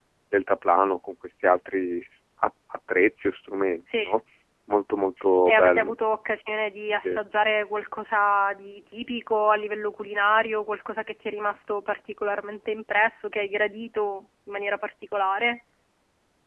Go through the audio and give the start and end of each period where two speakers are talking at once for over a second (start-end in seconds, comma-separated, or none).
none